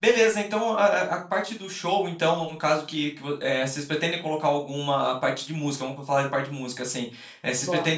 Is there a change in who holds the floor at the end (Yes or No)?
No